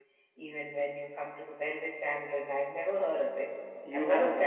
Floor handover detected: Yes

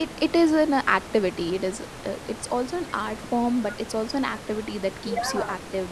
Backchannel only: No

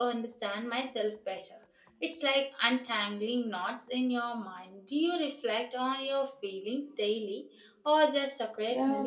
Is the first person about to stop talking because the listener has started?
Yes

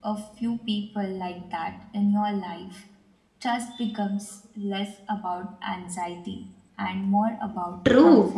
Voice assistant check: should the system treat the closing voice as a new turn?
Yes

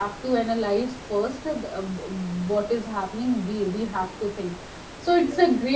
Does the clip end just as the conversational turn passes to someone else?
No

